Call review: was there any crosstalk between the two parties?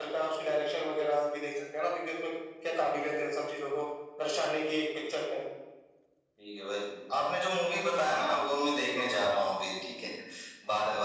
No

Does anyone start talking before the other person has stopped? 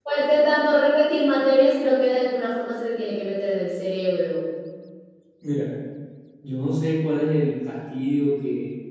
No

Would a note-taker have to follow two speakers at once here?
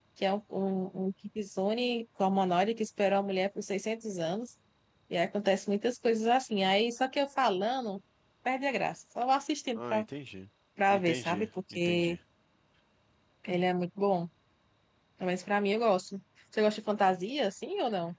Yes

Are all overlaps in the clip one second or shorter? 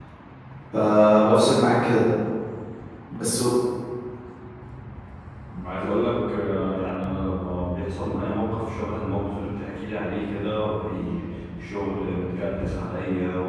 Yes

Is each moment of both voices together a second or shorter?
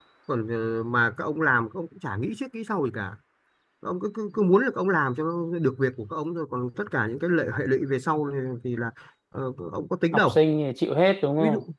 Yes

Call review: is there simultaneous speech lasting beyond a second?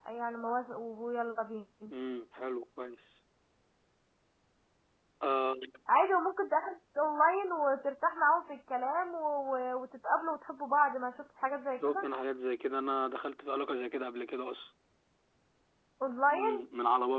No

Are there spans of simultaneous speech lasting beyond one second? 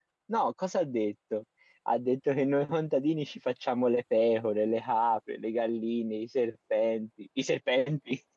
No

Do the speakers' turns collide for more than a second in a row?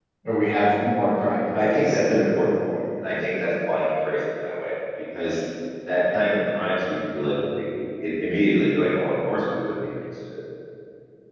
No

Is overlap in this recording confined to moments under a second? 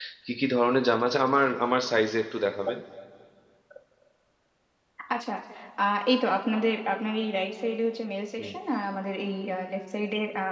Yes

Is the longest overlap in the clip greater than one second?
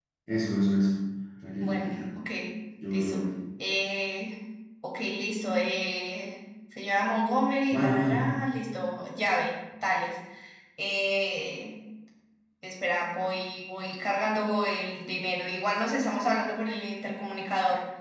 No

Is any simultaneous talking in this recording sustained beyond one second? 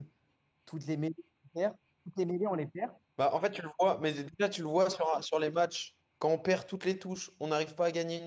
No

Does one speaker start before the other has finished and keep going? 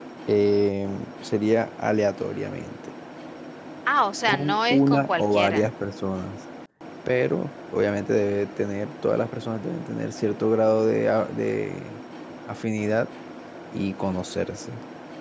Yes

